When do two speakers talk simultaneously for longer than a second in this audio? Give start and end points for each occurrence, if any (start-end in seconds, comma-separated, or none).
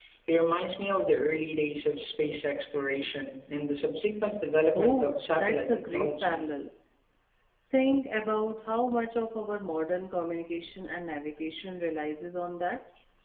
4.7-6.4